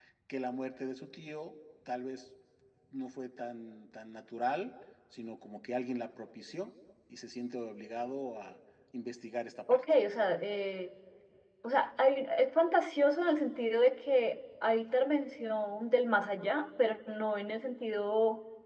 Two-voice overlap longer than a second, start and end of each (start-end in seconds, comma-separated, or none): none